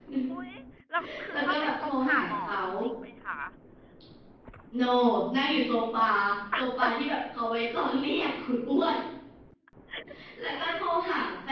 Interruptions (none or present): present